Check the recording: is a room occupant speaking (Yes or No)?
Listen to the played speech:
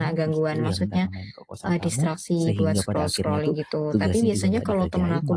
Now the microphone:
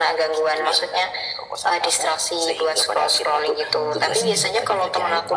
Yes